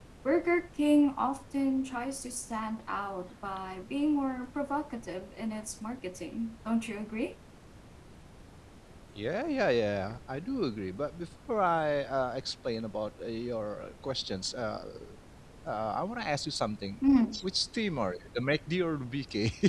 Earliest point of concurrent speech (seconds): none

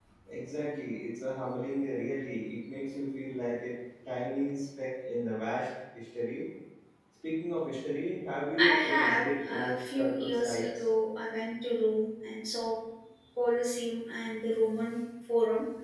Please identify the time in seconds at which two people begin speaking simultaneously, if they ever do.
8.6 s

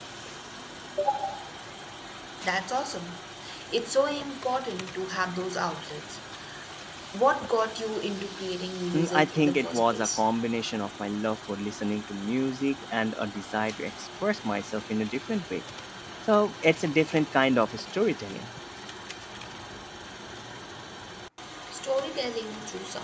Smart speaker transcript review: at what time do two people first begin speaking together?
8.9 s

